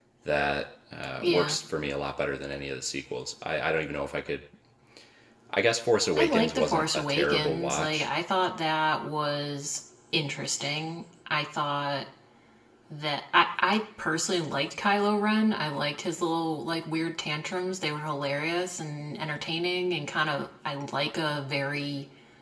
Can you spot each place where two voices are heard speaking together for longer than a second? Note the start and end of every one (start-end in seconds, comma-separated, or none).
6.2-8.1